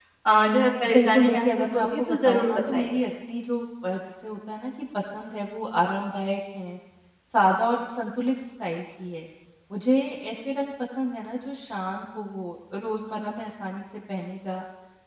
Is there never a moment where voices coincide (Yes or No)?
No